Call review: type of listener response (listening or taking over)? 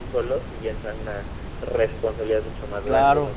taking over